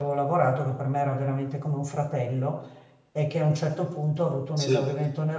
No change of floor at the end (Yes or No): Yes